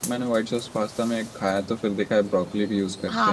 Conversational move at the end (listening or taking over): taking over